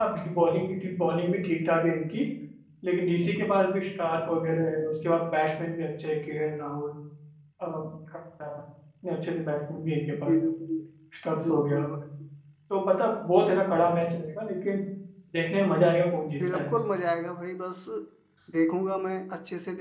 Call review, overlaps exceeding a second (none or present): none